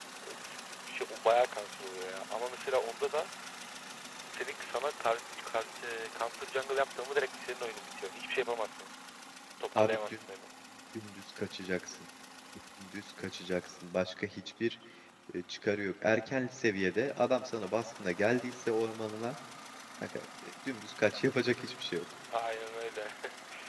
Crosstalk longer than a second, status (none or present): none